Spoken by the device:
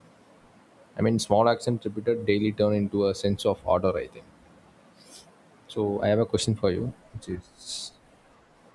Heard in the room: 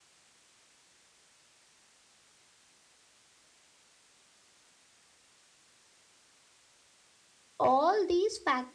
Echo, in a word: none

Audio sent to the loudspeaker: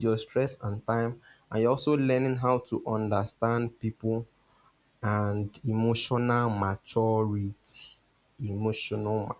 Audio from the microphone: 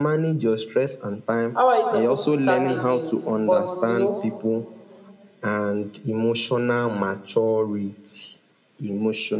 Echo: present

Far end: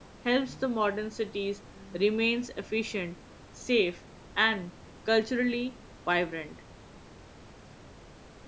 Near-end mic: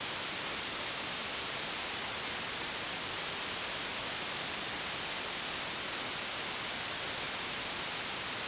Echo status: none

